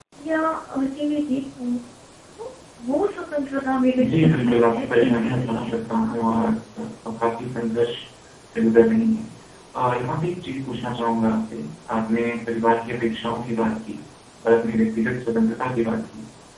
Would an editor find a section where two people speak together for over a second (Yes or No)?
Yes